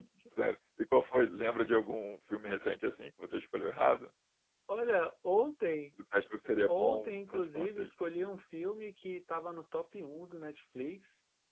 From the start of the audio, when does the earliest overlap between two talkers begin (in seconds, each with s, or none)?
6.7 s